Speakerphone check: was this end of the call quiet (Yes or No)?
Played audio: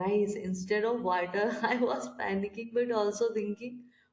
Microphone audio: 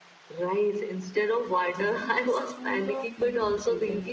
No